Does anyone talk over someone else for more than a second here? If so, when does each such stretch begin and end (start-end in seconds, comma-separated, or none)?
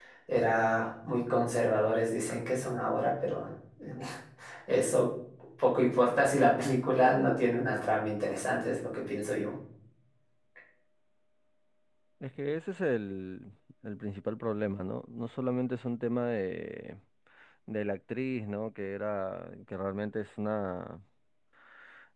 none